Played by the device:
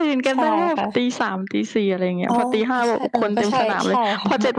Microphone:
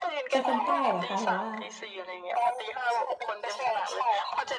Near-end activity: present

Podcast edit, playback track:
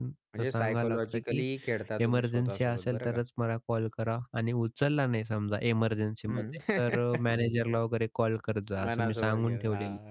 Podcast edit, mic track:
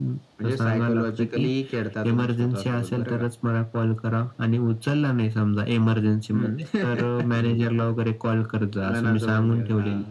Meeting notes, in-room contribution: none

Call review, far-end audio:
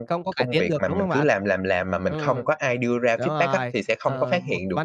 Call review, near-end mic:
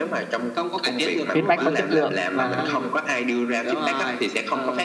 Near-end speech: present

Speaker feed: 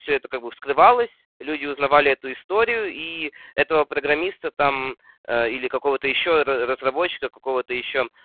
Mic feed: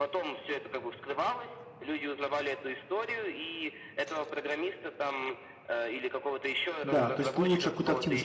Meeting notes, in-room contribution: present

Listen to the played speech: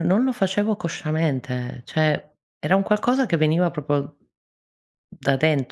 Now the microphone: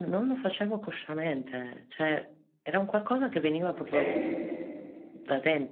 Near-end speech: present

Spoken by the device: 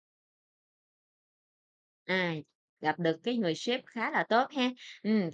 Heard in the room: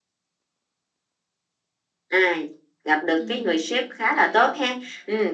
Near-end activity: present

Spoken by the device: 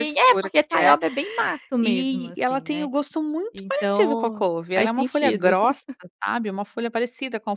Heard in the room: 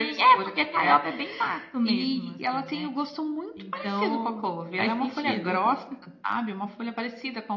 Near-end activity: none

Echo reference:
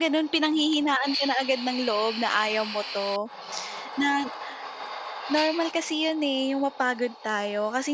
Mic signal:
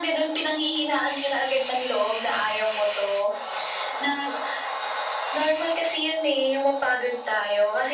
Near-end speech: none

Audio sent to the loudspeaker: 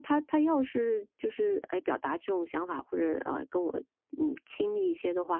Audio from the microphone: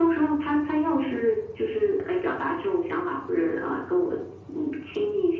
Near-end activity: none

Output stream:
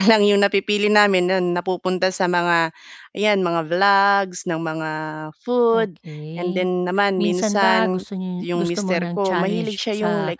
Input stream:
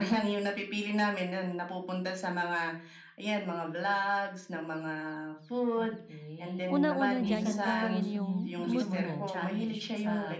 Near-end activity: present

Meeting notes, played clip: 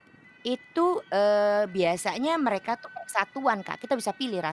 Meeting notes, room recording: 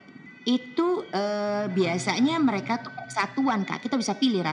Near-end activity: present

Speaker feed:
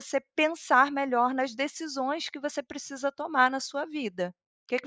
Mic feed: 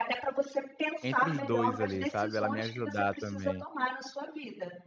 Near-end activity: present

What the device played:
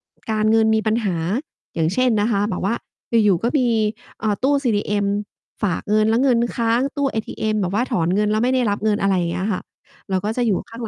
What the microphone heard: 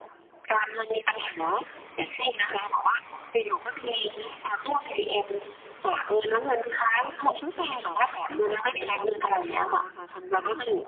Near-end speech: present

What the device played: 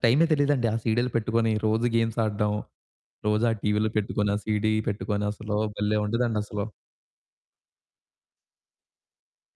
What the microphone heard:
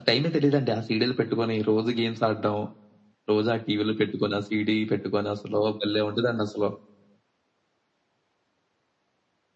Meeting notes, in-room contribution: none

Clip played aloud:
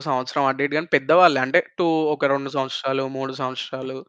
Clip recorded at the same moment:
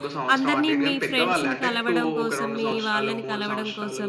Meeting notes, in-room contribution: present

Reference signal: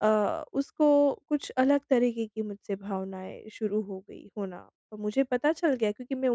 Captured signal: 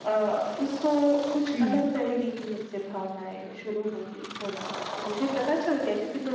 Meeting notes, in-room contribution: present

